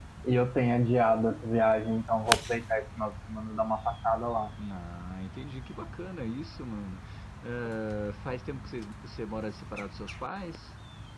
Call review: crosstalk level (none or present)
none